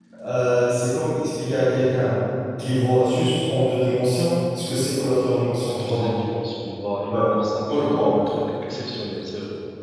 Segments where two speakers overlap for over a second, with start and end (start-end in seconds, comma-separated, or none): none